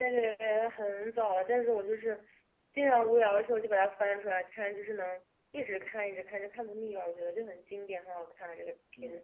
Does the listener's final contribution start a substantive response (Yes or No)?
Yes